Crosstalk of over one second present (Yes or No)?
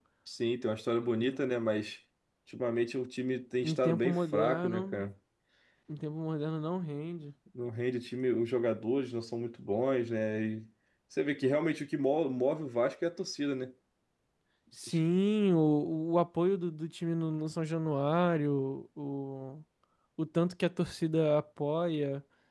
Yes